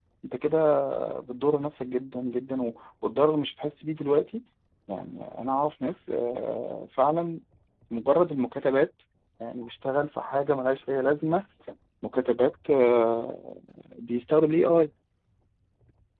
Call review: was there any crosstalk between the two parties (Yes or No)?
No